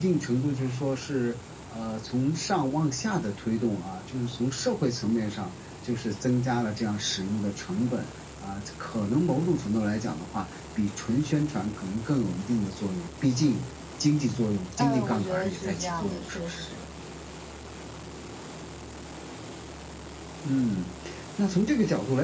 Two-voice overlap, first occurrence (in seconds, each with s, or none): 14.7 s